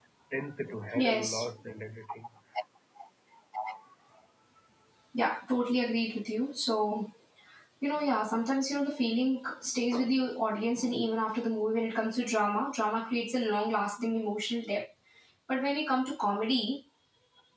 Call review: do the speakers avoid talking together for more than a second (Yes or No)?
Yes